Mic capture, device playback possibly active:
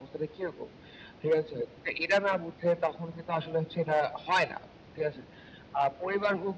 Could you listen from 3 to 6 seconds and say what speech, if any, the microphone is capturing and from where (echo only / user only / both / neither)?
echo only